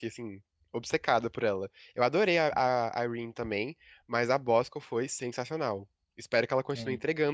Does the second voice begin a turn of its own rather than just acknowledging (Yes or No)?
No